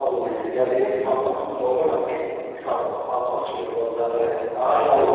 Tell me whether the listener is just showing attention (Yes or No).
No